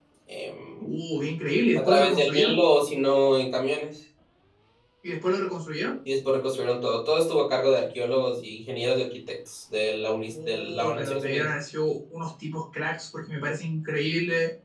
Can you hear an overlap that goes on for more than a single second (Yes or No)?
Yes